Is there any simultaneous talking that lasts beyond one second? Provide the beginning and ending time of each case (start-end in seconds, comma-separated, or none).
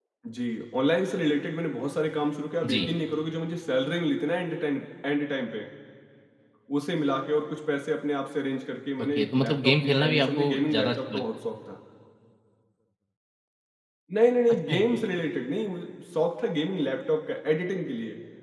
9.0-11.2